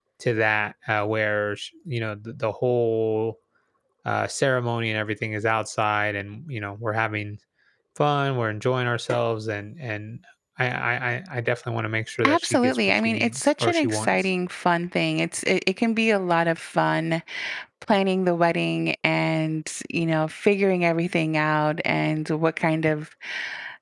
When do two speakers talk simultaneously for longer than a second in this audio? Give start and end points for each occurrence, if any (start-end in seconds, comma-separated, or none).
12.2-14.2